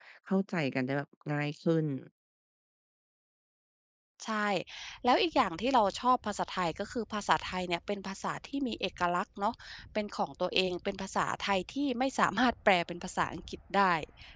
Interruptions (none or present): none